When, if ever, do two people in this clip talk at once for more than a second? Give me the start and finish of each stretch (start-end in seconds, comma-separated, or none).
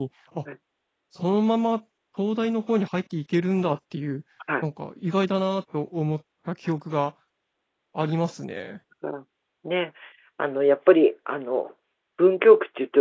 none